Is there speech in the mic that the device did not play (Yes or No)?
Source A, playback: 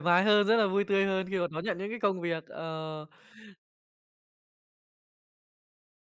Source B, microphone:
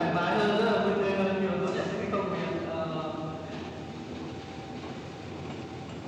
No